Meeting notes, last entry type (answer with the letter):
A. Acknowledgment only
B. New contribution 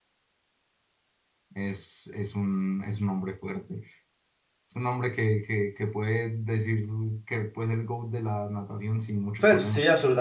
B